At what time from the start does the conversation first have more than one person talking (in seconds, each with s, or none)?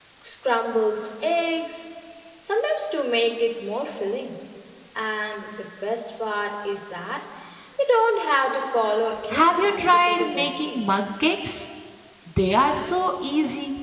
9.3 s